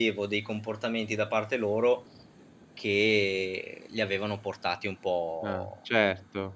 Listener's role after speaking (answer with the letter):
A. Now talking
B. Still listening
A